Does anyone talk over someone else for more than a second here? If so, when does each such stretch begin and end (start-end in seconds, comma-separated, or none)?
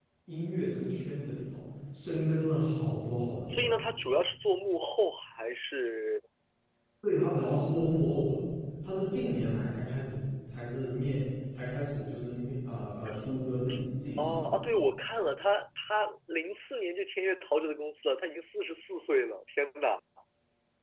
none